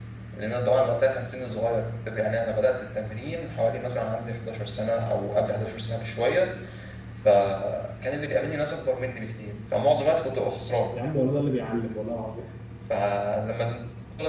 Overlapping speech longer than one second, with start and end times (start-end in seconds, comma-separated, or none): none